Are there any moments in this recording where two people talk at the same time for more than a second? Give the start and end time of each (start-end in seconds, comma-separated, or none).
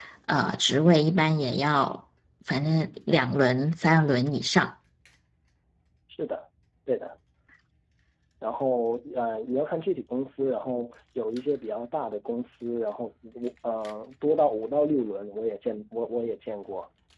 none